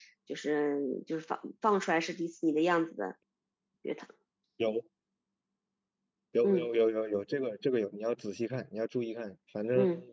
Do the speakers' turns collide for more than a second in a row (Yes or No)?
No